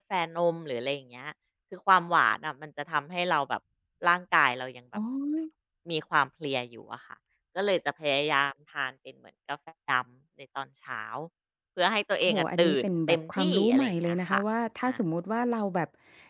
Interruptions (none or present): present